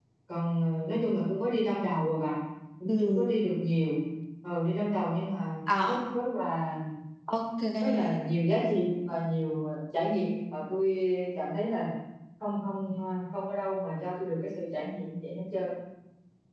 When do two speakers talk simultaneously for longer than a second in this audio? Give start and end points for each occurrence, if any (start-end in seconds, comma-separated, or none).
none